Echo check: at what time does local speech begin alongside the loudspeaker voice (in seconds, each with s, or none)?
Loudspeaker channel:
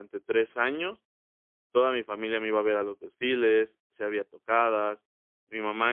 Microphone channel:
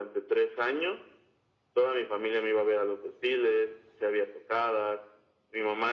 none